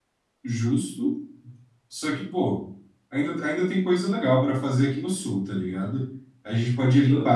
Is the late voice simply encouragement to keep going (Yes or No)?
Yes